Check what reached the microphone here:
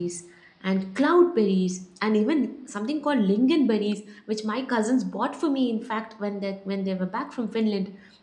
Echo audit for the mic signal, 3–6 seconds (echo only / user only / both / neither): user only